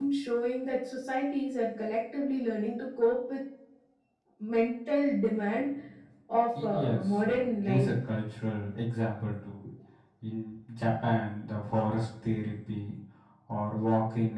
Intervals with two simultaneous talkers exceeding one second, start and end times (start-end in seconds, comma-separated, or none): 6.6-7.9